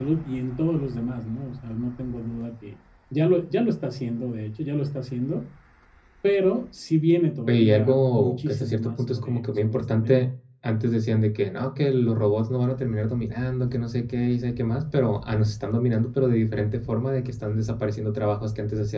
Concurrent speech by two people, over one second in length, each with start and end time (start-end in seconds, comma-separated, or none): 7.5-10.2